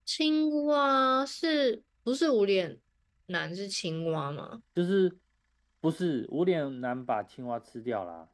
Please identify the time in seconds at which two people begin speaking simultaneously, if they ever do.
none

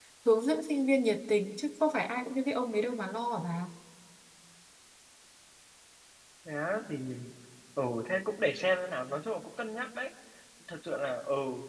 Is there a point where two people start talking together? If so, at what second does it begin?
none

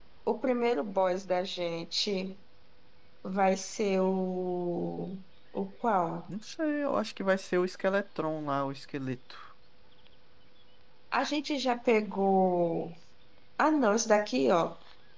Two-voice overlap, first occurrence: none

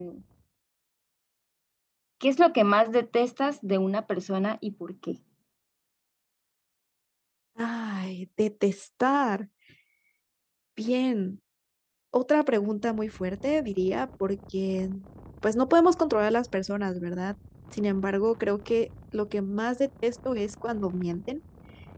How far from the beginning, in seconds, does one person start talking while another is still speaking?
none

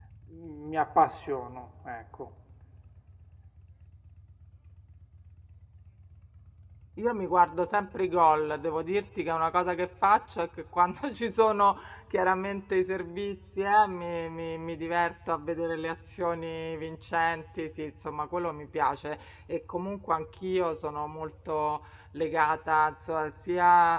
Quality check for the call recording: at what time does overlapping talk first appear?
none

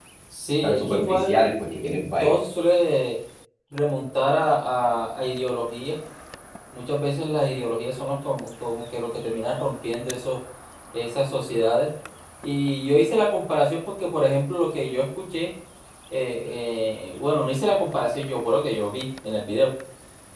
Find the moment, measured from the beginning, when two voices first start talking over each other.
1 s

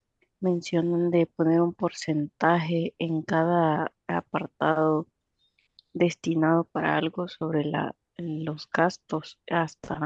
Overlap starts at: none

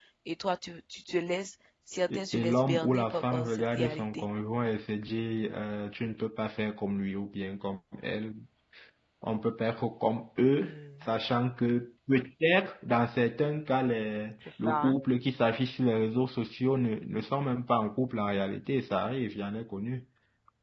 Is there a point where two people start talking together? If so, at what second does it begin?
2 s

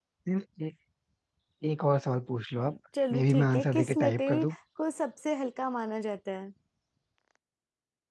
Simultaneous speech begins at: 3 s

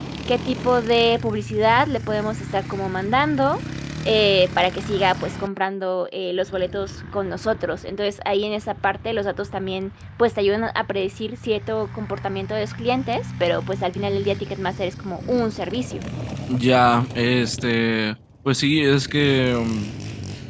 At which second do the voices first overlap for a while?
none

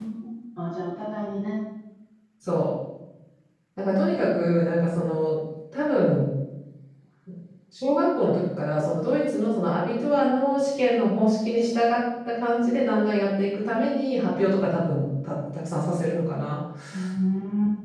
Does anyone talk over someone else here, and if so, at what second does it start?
none

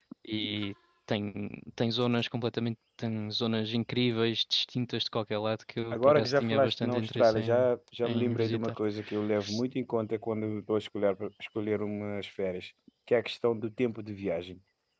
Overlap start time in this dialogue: 6 s

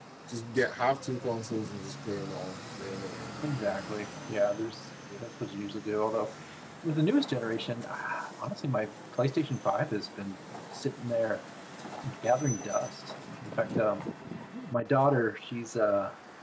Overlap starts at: none

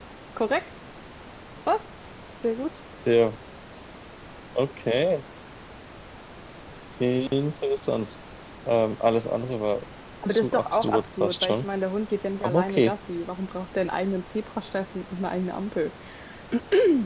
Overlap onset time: 10 s

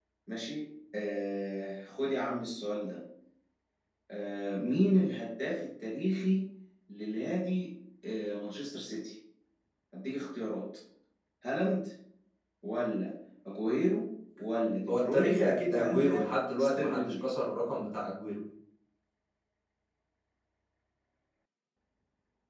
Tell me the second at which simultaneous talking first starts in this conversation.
15 s

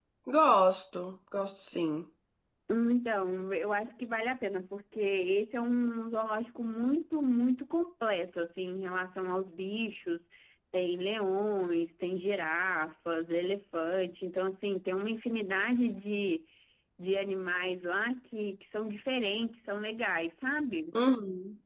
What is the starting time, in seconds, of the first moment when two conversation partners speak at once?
none

